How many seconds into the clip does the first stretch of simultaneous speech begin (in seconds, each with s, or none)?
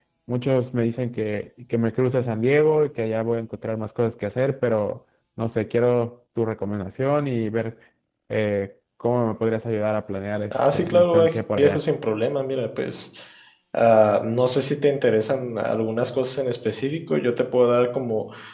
10.5 s